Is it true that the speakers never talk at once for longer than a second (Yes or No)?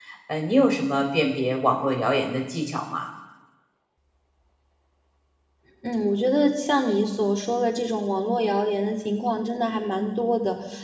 Yes